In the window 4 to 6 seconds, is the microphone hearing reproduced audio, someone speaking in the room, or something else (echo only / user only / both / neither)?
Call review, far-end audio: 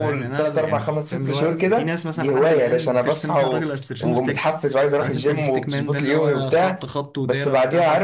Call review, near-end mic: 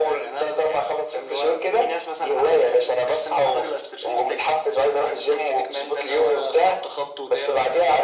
echo only